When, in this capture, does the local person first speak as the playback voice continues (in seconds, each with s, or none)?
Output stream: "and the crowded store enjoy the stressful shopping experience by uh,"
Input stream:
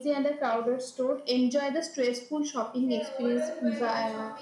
2.7 s